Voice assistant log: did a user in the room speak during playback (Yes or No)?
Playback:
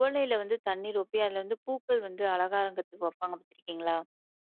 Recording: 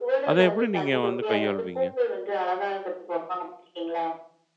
Yes